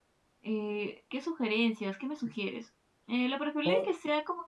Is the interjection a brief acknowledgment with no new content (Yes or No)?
Yes